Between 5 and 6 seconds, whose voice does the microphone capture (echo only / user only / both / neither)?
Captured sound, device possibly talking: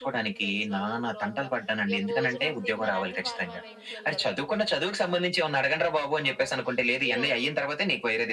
echo only